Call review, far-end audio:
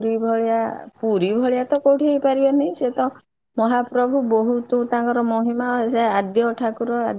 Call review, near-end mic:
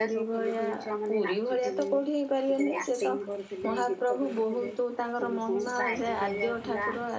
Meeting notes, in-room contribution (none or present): present